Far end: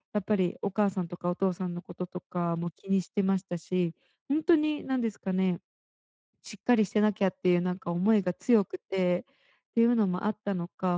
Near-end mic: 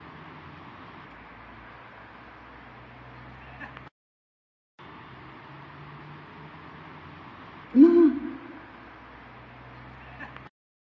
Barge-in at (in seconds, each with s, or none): 7.7 s